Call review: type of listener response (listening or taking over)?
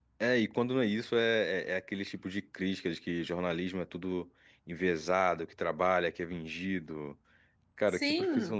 taking over